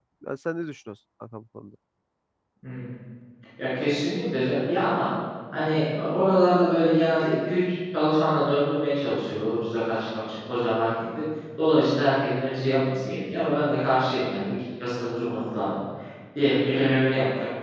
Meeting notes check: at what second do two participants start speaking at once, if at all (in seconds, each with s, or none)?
none